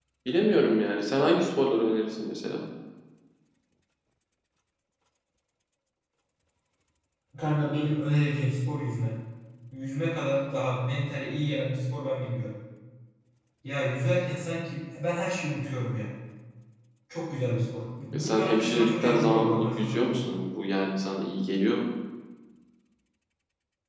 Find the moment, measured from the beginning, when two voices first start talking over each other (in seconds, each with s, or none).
18.1 s